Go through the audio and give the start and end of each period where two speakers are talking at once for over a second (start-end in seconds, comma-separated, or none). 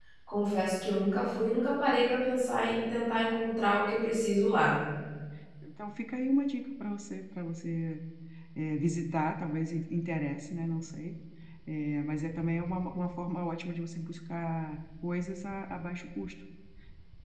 none